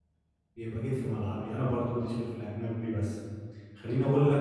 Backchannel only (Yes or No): Yes